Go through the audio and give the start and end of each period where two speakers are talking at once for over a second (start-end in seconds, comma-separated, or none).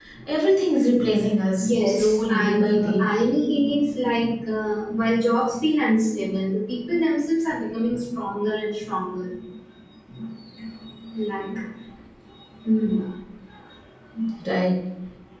1.6-3.1